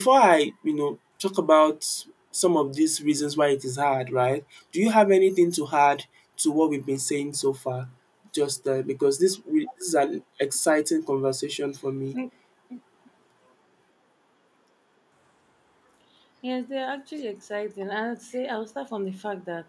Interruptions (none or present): none